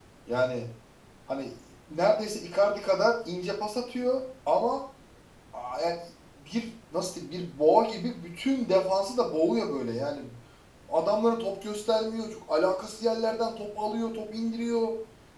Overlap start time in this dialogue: none

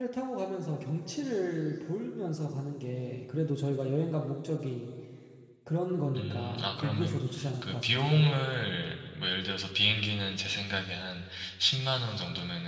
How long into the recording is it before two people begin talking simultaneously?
6.1 s

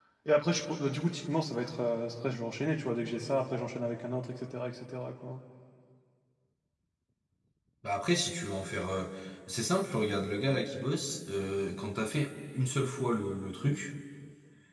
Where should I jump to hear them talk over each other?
none

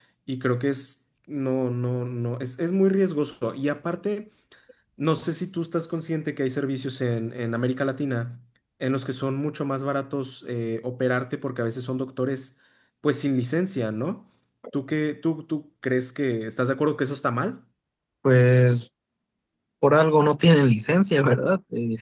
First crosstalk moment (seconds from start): none

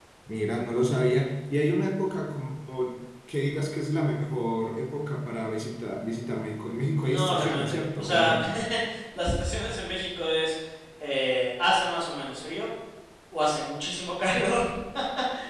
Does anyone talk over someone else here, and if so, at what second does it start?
7.0 s

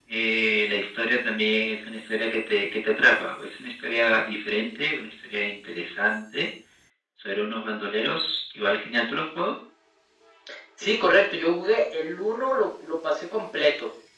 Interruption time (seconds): none

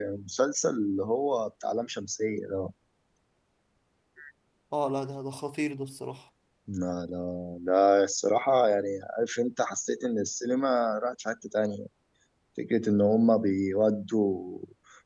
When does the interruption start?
none

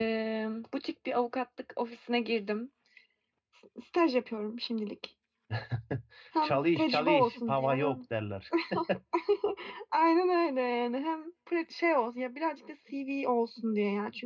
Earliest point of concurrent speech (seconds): 6.4 s

